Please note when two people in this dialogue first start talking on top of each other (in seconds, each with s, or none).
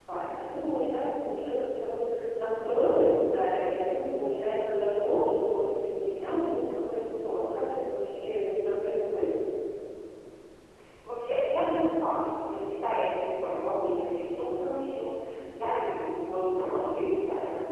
none